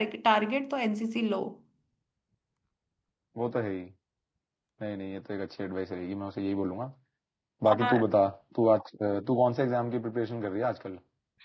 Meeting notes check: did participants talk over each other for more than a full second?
No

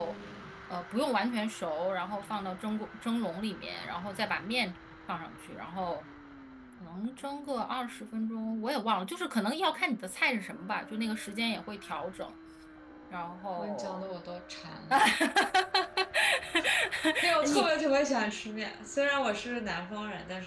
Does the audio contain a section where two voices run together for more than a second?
No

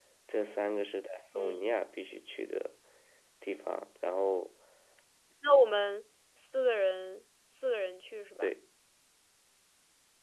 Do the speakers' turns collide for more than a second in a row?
No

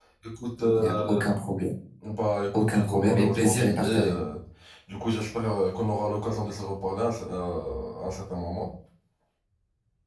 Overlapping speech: Yes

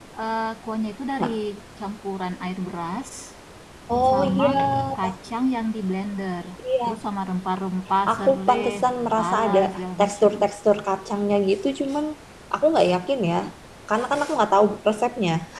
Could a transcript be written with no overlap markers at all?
No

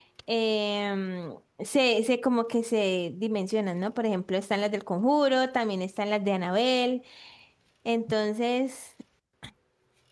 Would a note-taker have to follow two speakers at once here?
No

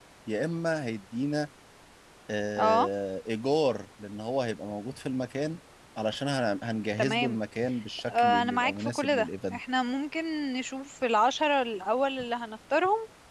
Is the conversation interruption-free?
No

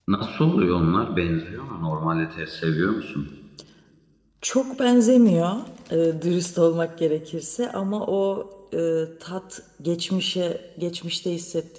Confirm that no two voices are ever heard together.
Yes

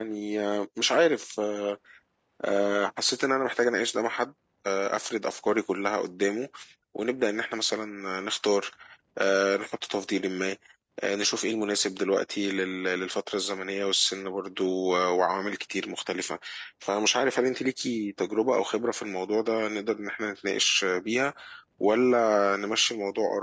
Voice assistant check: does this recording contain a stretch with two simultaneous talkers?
No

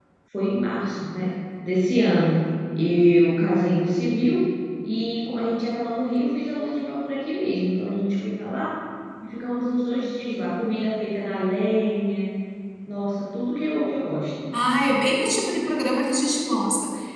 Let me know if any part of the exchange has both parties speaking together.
No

